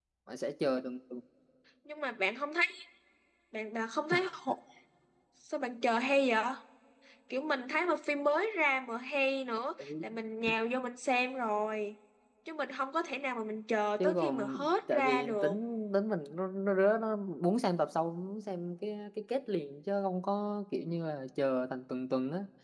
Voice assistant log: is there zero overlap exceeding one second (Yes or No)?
No